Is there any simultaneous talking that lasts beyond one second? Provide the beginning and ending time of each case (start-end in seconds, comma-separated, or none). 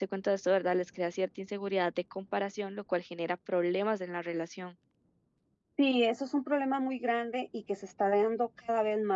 none